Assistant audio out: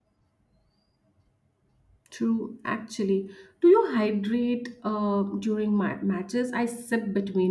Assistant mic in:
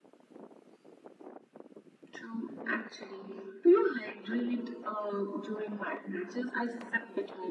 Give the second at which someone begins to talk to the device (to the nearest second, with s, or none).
none